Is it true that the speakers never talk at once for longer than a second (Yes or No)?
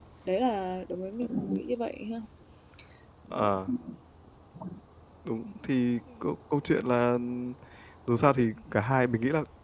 Yes